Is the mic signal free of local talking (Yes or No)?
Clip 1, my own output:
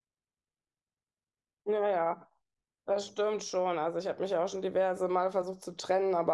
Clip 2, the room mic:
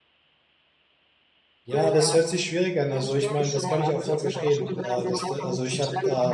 No